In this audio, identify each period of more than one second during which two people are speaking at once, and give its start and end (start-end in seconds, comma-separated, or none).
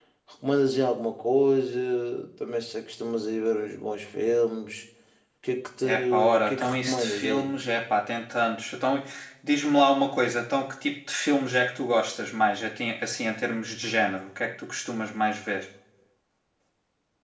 5.8-7.5